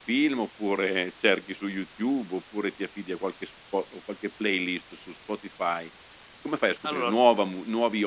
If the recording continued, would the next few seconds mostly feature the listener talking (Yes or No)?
No